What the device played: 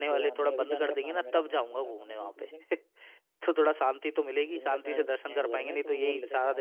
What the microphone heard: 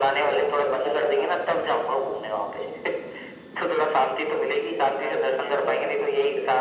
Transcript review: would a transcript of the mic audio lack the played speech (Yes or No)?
No